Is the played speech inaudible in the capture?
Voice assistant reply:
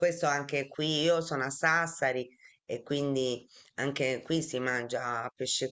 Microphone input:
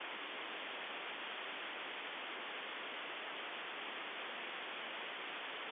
Yes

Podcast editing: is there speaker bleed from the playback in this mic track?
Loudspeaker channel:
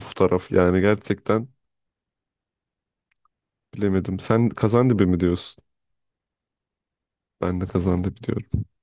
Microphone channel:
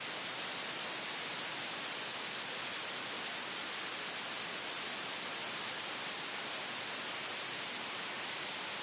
No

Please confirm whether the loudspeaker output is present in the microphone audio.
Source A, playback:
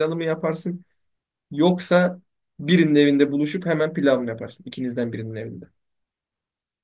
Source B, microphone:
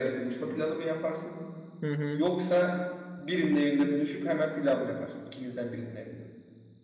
Yes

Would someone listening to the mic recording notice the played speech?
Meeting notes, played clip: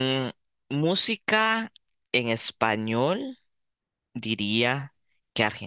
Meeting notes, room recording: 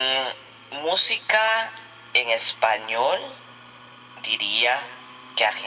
Yes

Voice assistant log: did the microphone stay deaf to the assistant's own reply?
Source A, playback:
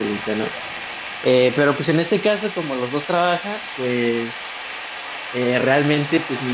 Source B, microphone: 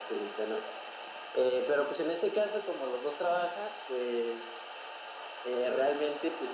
No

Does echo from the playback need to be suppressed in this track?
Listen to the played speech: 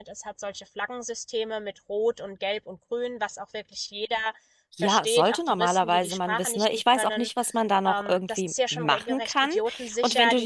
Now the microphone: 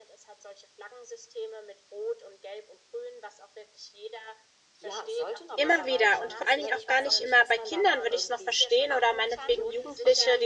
Yes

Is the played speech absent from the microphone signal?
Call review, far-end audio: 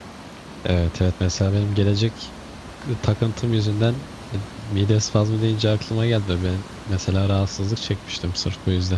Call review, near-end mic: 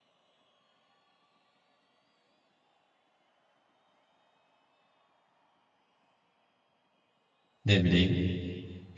Yes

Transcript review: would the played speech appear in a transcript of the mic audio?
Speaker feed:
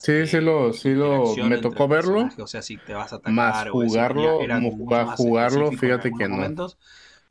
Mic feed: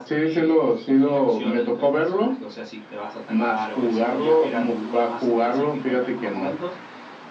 Yes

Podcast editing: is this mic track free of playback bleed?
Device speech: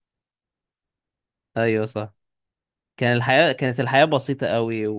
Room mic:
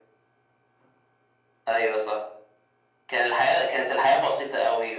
No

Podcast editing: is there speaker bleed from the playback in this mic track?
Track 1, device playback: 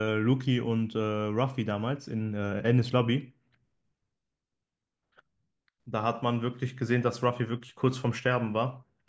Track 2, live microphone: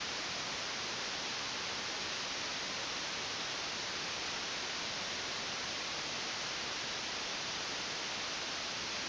No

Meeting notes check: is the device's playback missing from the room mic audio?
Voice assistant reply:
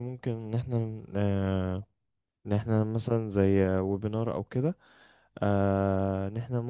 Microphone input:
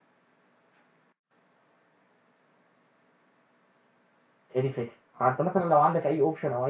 Yes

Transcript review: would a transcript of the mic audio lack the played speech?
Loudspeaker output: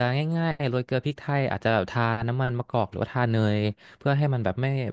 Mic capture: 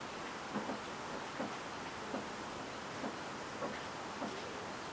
Yes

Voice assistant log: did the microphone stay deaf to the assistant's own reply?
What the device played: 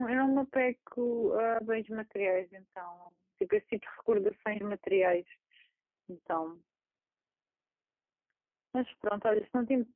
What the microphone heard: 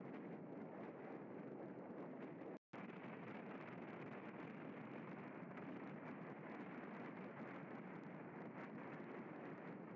Yes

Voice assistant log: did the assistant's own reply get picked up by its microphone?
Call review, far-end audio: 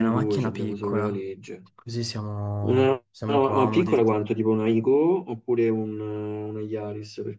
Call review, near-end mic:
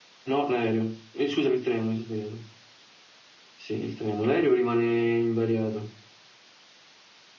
No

